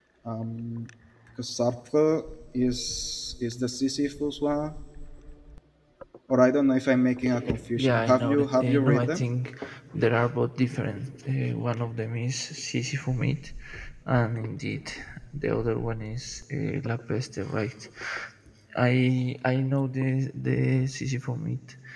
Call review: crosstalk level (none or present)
present